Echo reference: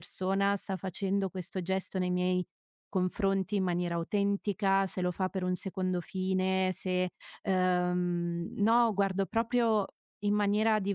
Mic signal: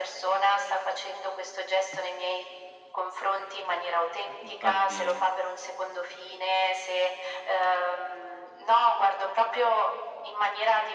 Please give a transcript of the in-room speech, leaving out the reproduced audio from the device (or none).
Eh, infatti